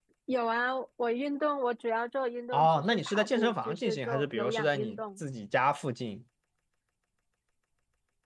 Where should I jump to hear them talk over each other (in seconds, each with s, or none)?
2.5 s